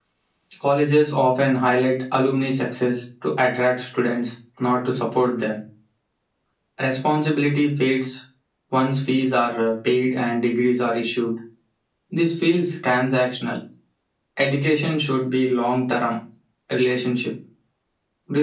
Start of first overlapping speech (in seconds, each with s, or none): none